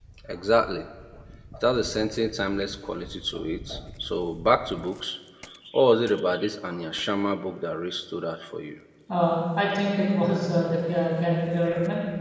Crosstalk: none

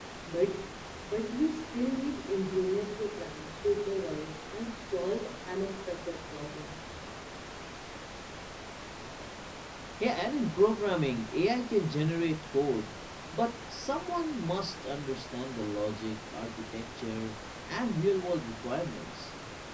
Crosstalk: none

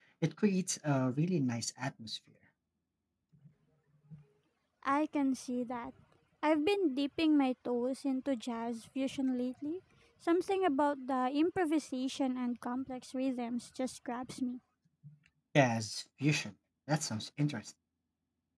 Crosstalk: none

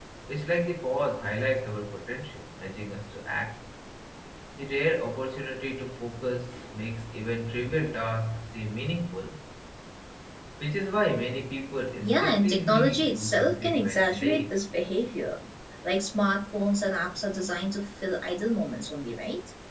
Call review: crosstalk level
present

